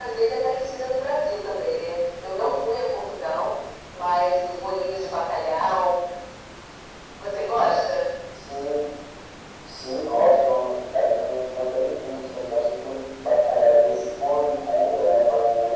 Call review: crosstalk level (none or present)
none